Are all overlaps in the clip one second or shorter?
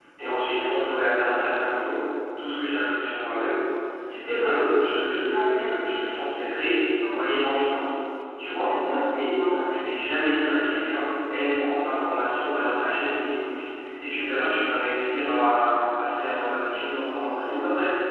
No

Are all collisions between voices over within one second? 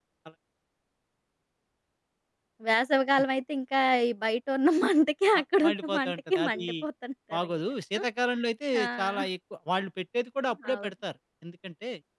No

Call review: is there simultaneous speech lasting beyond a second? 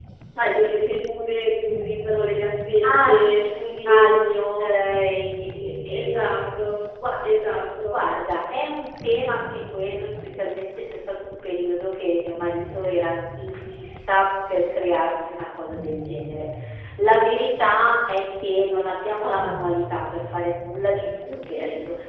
Yes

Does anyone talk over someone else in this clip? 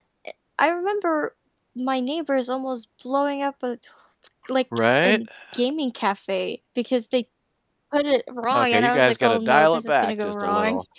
Yes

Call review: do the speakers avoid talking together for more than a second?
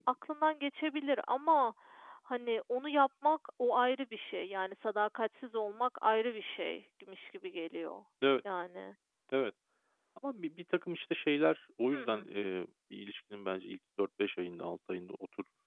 Yes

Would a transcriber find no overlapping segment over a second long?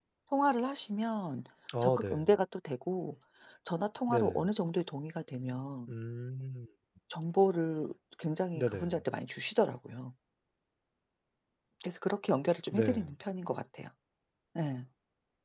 Yes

